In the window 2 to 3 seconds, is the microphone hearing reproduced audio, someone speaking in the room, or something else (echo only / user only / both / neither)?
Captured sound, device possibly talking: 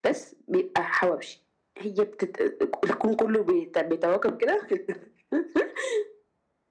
echo only